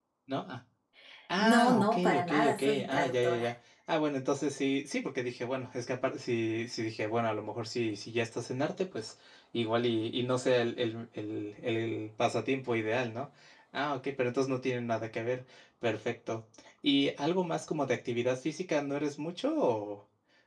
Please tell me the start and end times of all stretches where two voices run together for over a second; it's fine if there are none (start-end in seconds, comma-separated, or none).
1.4-3.5